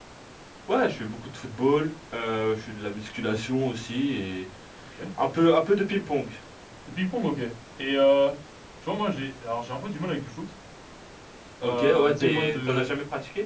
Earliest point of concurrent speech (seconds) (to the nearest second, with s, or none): 12 s